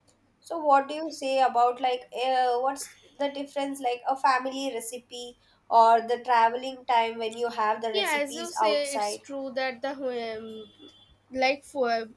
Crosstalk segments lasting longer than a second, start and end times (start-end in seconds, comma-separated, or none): 7.9-9.2